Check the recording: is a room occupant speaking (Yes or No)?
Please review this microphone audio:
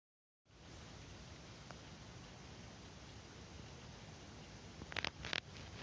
No